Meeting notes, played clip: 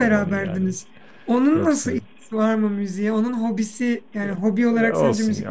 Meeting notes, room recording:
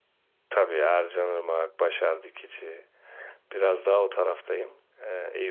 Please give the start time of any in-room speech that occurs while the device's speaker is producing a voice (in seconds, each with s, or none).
0.5 s